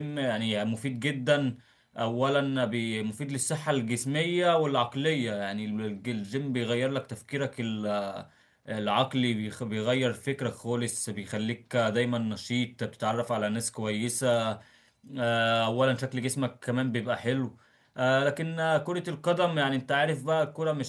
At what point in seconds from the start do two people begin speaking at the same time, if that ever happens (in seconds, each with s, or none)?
none